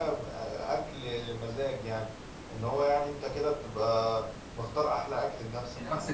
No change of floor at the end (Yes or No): No